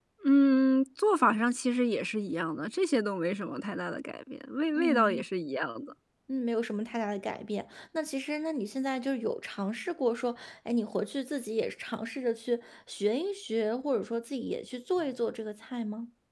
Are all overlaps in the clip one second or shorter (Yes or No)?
Yes